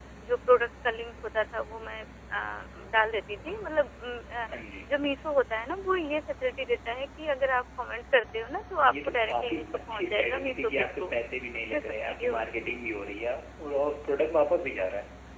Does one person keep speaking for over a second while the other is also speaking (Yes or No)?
Yes